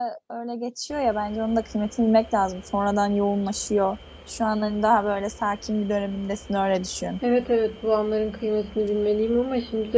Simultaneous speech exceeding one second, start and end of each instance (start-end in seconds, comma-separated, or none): none